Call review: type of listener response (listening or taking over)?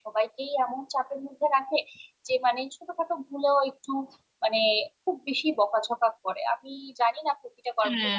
taking over